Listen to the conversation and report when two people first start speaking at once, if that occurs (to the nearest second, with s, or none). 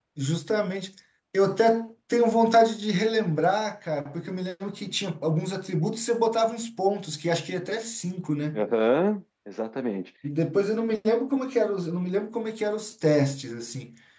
none